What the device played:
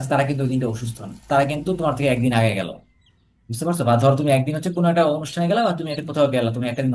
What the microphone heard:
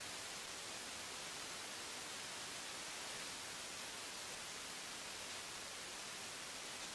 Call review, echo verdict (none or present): none